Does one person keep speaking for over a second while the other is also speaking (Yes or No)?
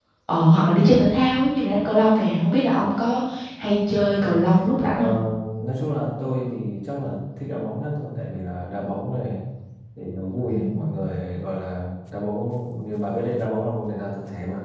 No